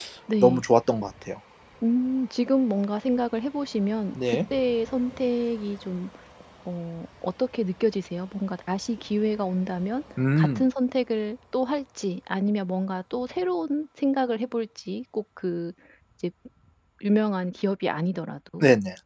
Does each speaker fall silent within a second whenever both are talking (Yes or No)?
Yes